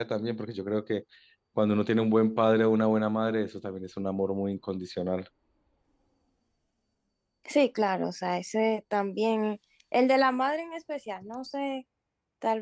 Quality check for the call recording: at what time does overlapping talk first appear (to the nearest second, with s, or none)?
none